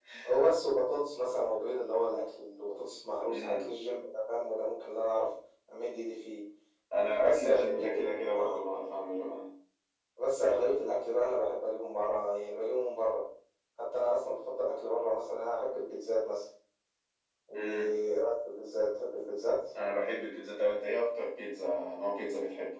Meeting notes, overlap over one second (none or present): present